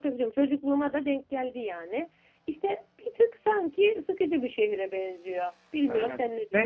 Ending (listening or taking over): taking over